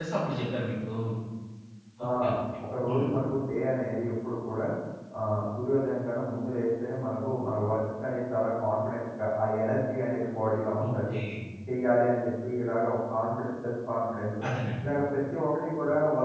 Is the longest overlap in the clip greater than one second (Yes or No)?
No